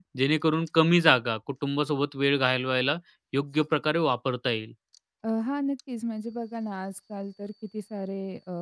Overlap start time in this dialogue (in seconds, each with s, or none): none